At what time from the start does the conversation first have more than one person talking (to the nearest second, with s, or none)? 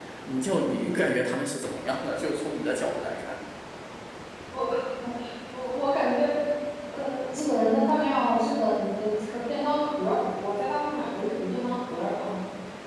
none